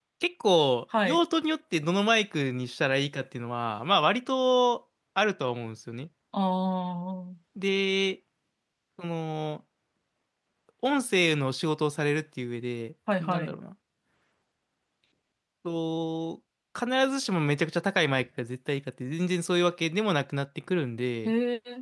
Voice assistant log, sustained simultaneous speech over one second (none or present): none